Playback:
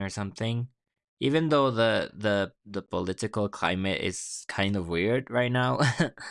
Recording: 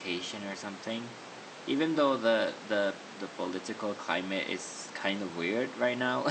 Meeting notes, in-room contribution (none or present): none